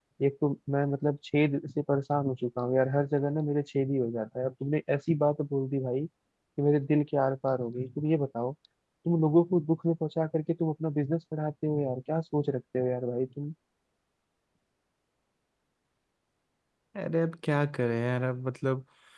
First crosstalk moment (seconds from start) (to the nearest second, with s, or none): none